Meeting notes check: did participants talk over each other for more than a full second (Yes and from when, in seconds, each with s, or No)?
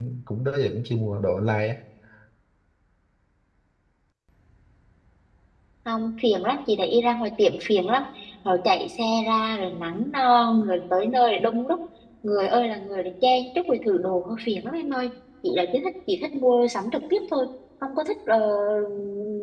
No